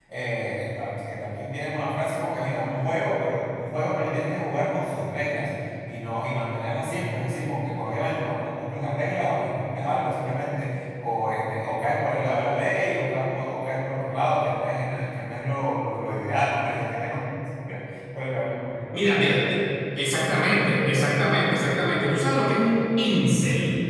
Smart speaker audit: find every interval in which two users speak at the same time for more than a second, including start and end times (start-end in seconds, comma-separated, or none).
none